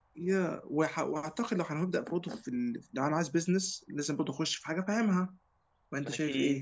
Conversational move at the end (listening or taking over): taking over